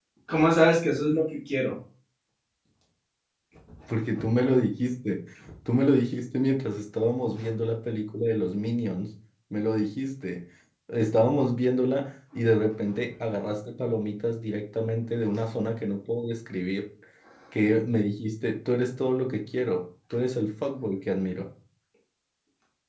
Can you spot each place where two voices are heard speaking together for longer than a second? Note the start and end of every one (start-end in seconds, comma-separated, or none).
none